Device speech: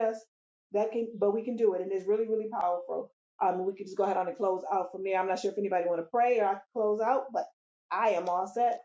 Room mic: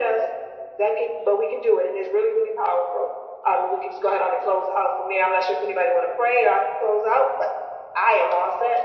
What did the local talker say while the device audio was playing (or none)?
none